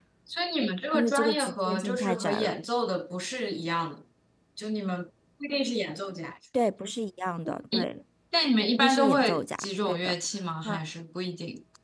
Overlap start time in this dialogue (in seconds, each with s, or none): 0.9 s